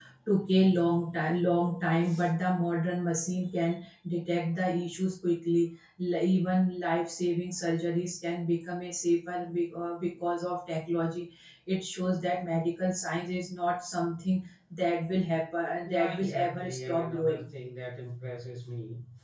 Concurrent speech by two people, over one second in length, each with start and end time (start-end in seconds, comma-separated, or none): 15.8-17.5